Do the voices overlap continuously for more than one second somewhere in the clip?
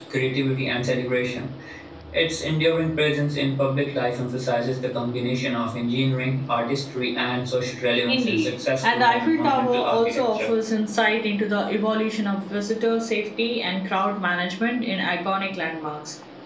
Yes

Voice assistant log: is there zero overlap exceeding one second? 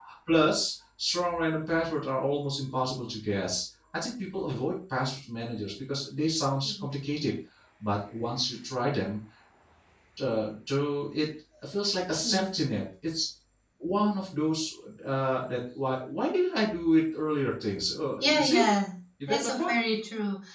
Yes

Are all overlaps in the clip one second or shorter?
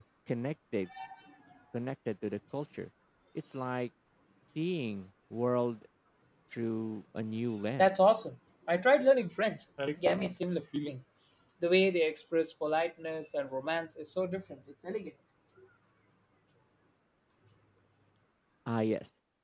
Yes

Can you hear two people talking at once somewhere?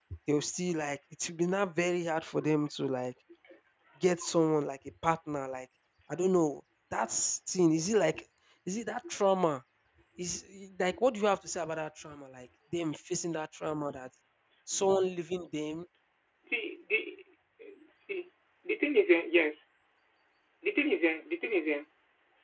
No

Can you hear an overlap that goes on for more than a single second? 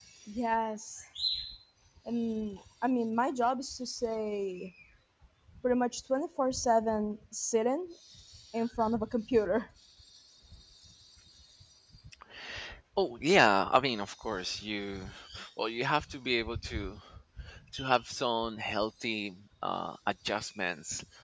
No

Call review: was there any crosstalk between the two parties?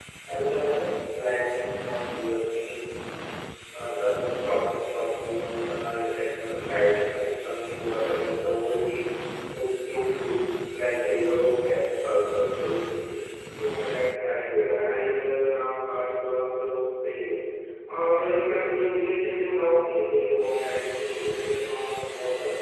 No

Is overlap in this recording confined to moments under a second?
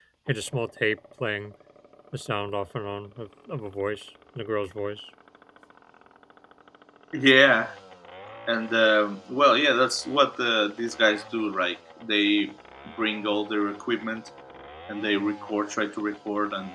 Yes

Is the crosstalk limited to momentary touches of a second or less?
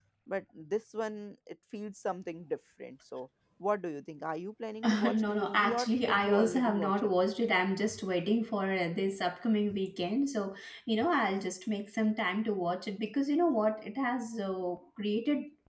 No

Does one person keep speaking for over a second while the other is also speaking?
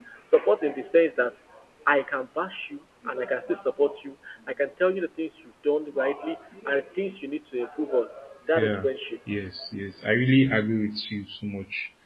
No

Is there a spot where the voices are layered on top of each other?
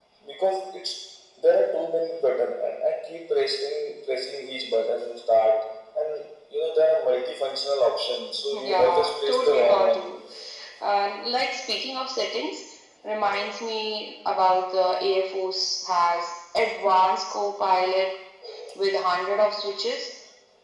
Yes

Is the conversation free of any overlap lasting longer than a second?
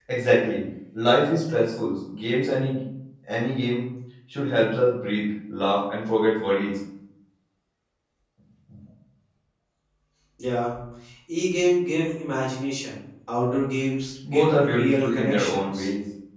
No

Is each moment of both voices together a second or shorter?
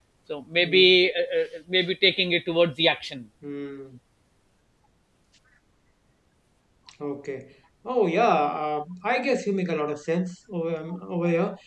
Yes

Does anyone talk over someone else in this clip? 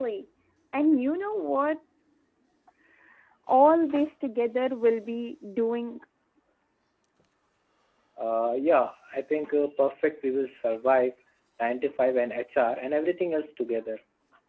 No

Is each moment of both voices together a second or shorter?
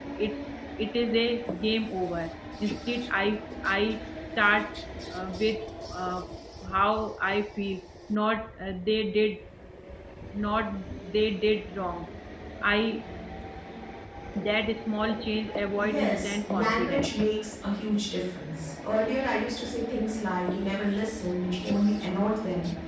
No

